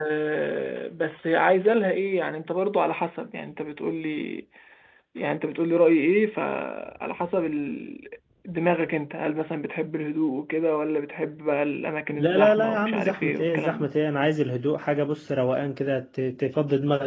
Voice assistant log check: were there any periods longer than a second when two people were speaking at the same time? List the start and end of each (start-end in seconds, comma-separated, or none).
12.2-13.9